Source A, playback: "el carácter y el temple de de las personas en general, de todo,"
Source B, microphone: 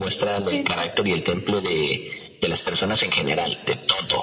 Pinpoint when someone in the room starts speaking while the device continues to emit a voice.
0.5 s

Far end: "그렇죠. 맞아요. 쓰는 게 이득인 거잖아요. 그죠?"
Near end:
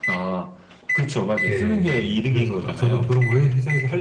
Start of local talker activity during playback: 1.5 s

